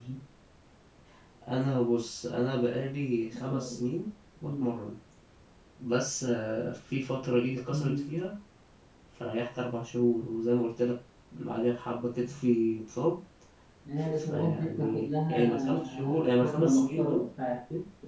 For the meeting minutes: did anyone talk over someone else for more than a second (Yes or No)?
Yes